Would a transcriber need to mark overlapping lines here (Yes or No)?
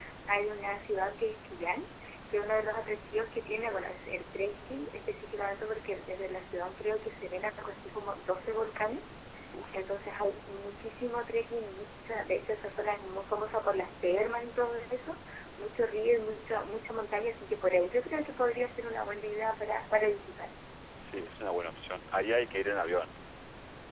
No